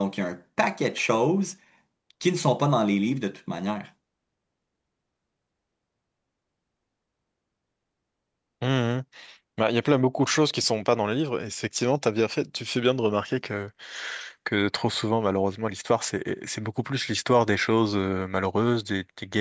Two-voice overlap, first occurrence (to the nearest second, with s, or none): none